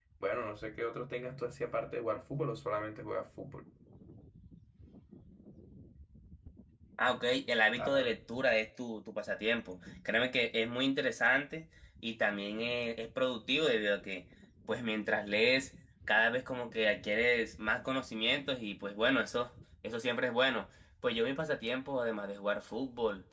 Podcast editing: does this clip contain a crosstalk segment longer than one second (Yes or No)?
No